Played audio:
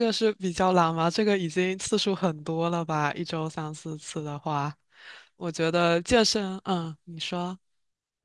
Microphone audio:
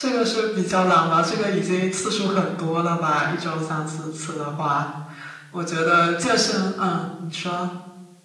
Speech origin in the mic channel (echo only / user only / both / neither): echo only